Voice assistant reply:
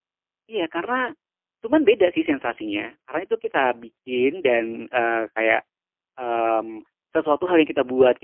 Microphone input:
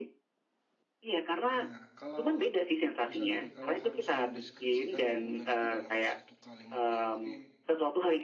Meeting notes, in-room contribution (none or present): present